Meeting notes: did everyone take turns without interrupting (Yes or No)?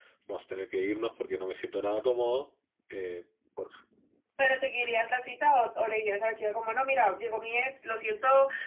Yes